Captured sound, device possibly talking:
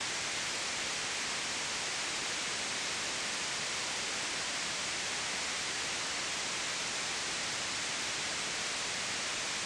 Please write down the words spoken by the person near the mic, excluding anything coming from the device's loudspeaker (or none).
none